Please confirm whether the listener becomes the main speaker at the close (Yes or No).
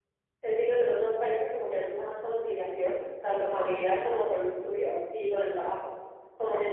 No